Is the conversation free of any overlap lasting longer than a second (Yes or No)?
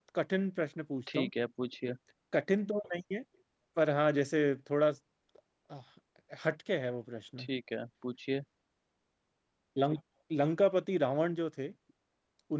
Yes